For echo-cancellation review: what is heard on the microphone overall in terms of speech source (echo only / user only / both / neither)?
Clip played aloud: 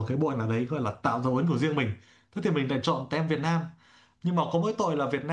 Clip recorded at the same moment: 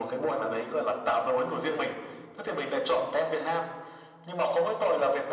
echo only